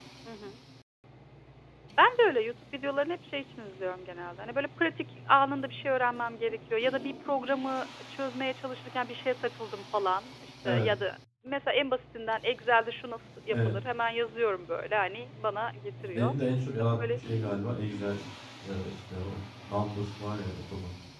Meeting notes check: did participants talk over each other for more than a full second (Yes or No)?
No